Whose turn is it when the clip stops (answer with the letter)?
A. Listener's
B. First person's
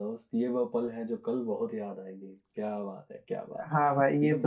A